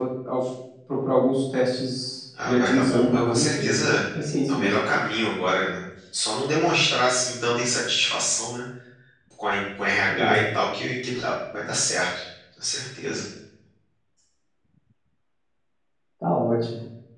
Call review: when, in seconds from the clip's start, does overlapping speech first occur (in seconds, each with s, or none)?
2.5 s